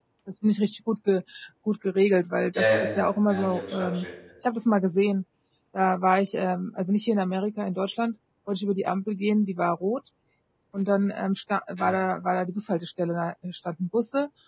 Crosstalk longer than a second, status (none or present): present